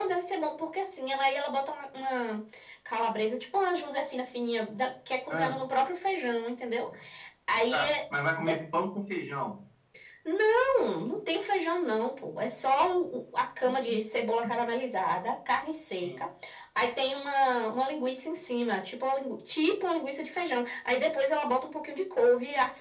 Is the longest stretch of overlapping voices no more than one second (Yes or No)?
Yes